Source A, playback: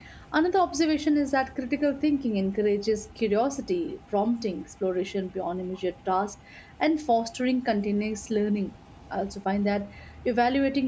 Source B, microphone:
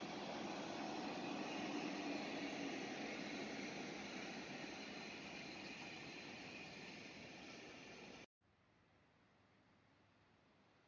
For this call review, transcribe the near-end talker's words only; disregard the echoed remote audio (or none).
none